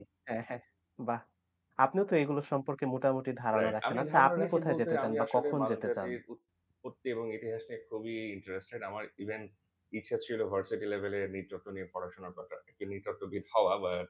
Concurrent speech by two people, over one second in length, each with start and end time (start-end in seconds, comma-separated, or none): 3.6-6.1